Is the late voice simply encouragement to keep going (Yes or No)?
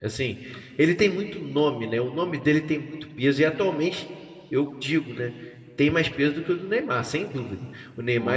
Yes